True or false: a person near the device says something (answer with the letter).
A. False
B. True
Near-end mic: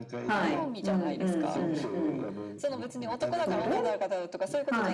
B